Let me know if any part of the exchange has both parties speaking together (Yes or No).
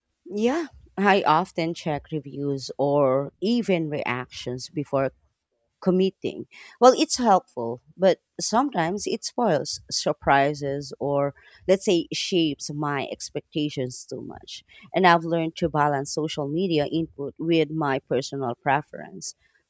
No